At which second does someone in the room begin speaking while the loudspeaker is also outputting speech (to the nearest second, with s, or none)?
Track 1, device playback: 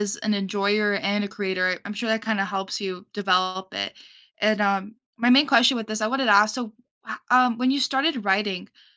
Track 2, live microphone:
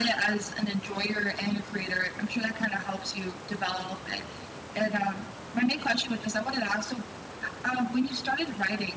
none